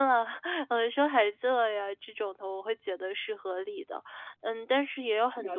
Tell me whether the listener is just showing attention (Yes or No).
Yes